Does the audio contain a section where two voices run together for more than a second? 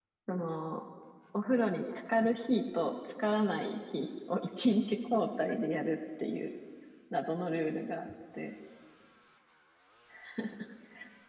No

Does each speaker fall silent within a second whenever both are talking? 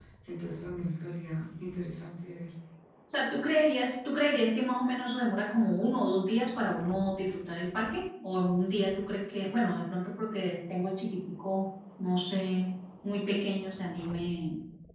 Yes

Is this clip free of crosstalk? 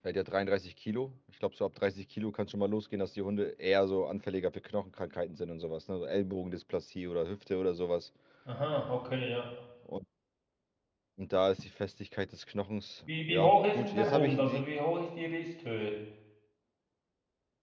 No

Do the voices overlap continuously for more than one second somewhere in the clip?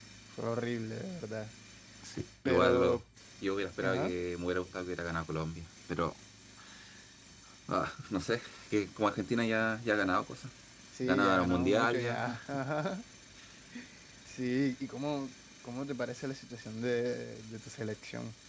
Yes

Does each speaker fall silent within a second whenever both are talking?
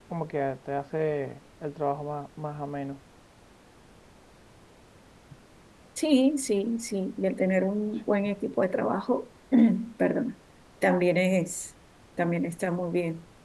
Yes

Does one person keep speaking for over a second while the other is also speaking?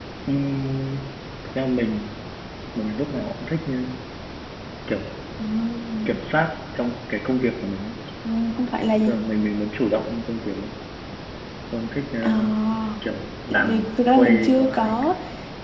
Yes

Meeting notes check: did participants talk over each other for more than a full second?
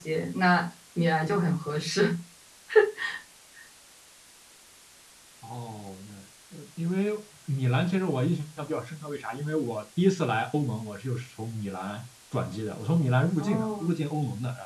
No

